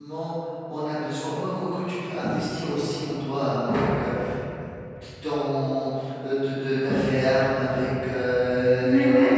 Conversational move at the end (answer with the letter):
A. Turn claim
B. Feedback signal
B